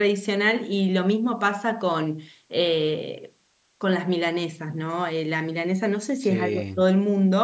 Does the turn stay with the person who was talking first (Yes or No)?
Yes